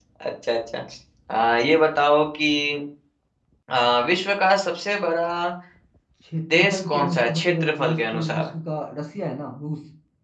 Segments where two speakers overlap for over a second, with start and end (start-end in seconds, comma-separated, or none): 6.5-8.5